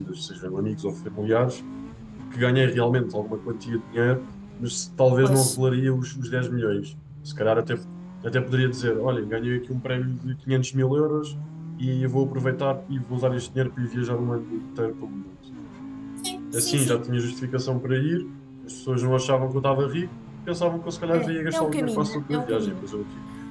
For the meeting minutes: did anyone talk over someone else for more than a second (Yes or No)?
Yes